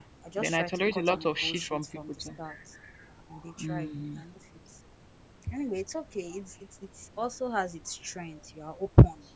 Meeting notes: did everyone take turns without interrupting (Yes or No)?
No